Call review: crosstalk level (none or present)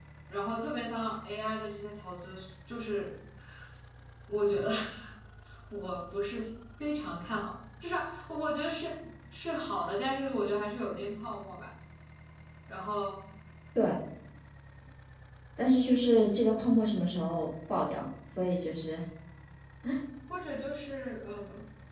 none